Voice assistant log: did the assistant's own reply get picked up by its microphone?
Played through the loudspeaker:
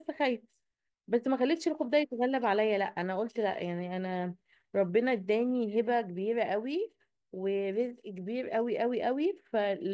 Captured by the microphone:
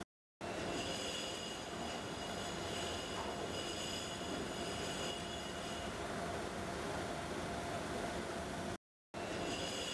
No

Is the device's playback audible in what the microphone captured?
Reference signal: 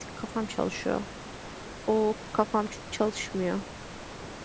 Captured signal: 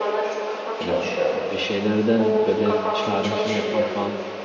Yes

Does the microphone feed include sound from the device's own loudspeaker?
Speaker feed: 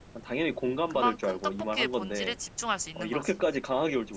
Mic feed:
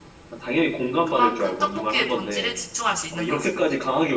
Yes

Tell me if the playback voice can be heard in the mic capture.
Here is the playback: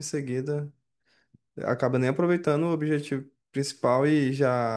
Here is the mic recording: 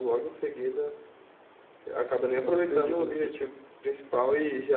Yes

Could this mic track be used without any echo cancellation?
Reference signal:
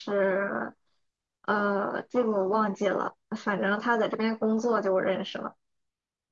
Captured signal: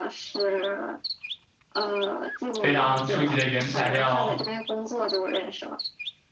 No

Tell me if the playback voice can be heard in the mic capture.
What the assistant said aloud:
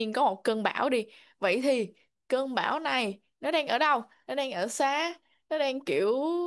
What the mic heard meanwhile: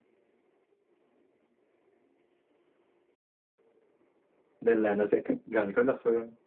No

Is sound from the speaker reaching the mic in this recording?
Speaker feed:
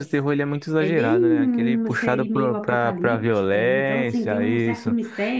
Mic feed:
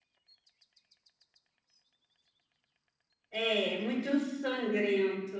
No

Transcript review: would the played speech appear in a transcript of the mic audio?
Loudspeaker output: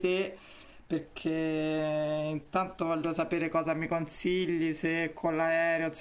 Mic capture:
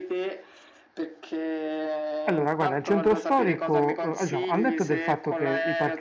Yes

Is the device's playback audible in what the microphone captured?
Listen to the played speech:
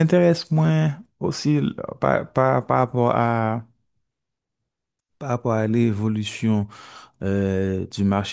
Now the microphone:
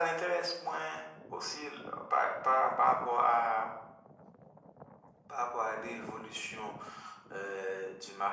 Yes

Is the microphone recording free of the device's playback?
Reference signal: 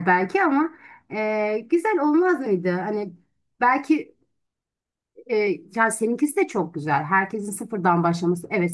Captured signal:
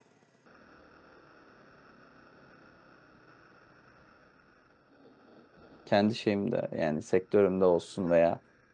Yes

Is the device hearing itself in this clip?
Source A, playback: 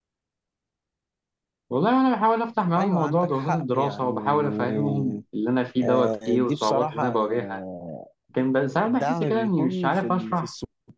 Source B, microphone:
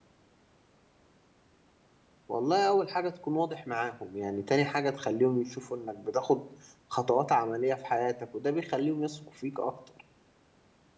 No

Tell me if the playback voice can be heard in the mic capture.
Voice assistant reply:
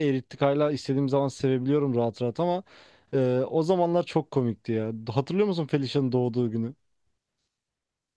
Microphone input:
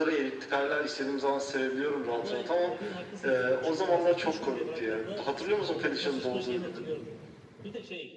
Yes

